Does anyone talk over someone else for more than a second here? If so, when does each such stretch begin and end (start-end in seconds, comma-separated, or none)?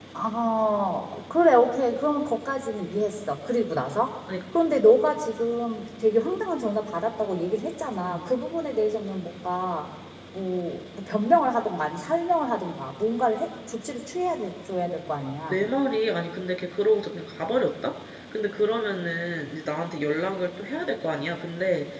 none